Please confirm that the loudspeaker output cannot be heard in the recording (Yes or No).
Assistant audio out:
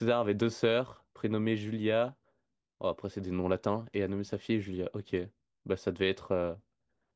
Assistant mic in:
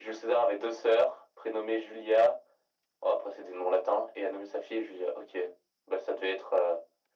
No